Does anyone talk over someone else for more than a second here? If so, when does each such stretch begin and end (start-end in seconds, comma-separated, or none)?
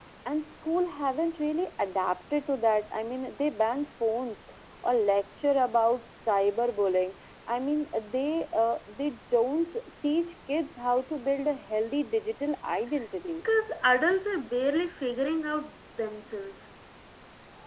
none